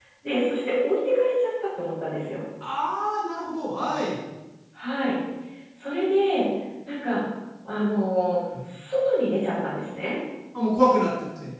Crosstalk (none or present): none